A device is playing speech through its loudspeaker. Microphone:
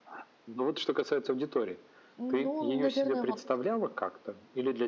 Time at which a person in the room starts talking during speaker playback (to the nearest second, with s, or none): 2 s